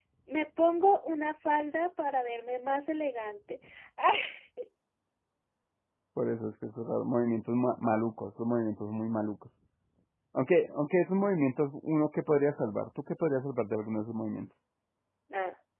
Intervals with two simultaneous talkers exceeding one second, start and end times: none

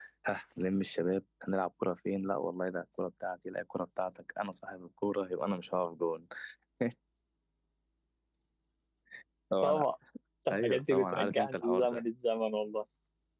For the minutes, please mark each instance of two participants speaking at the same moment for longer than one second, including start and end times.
10.5-12.0

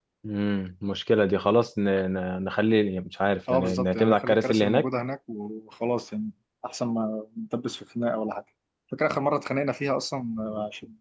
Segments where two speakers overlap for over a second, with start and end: 3.5-4.9

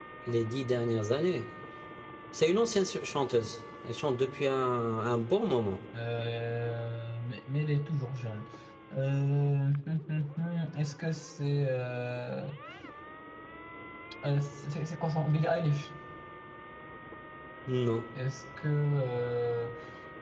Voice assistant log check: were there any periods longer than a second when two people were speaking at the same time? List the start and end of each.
none

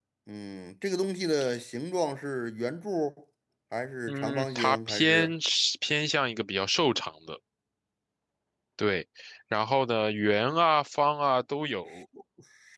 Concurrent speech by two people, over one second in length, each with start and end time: 4.1-5.3

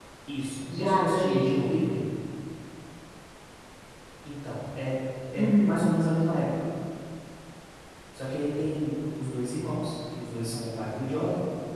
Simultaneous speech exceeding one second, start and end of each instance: 0.7-1.9

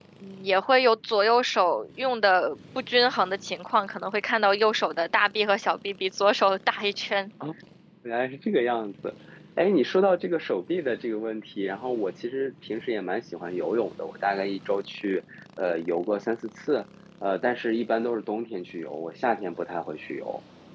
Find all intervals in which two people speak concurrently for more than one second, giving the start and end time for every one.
none

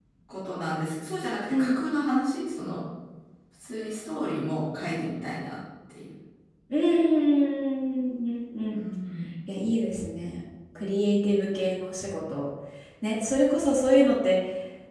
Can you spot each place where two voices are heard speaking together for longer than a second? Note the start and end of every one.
none

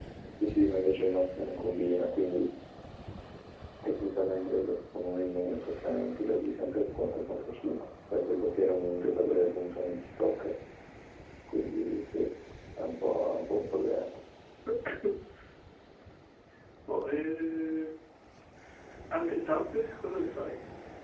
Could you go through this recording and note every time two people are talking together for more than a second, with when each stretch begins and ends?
none

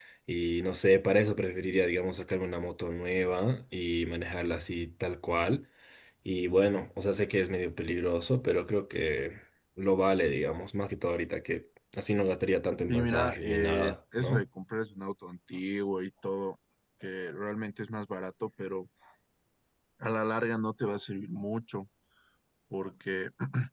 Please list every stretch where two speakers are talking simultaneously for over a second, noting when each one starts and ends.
12.9-14.4

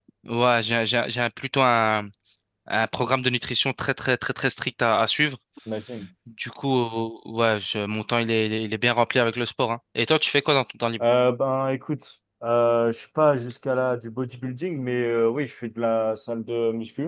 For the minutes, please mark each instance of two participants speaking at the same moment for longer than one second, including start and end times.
none

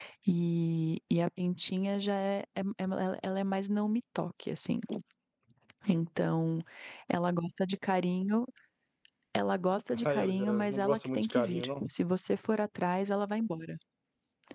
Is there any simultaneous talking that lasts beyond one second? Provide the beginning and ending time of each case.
9.9-11.8

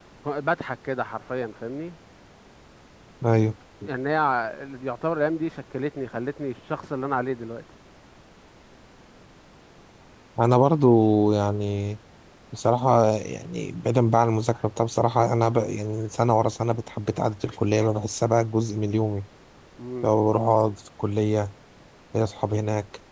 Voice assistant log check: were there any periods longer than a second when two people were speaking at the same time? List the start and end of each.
none

